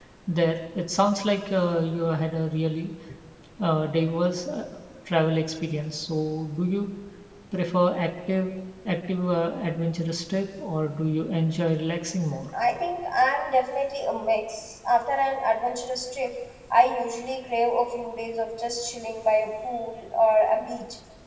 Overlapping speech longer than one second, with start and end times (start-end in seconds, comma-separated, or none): none